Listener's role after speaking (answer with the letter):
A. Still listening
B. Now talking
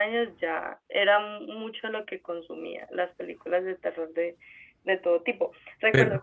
A